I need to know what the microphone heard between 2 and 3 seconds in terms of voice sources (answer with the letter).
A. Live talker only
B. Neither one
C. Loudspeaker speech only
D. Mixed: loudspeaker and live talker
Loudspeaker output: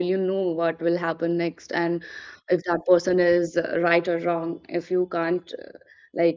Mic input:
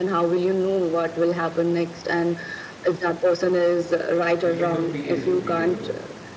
C